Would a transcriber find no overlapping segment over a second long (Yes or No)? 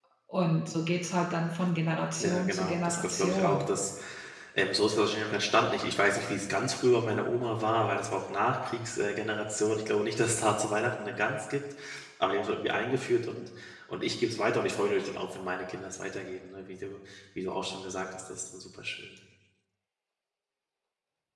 No